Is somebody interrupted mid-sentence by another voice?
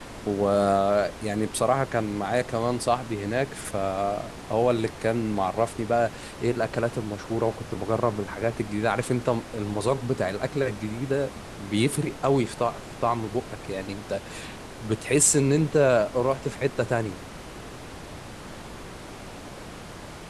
No

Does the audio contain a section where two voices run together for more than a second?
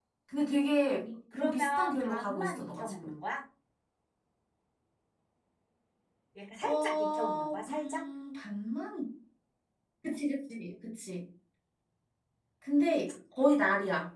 Yes, from 1.3 s

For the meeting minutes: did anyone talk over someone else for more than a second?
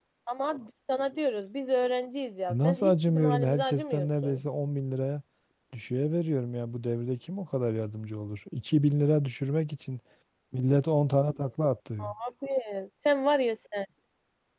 Yes, from 2.5 s

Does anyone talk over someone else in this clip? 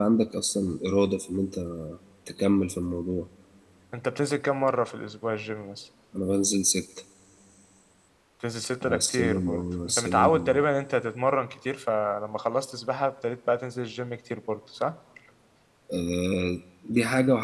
Yes, from 8.8 s

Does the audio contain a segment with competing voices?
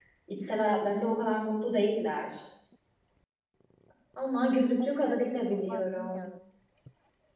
Yes, from 4.8 s

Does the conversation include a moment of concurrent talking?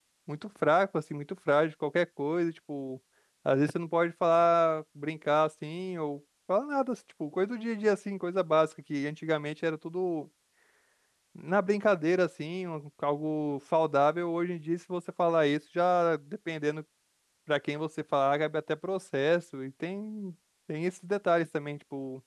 No

